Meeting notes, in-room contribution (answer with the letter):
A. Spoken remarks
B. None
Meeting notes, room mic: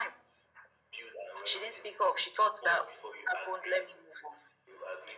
B